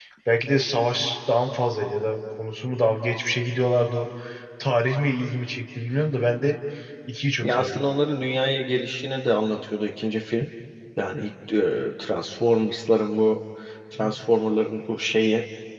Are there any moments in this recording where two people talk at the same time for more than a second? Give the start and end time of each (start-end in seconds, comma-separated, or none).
none